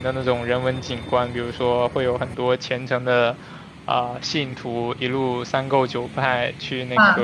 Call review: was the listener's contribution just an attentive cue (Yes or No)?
Yes